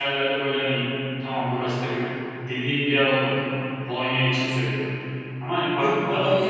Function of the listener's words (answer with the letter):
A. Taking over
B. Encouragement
A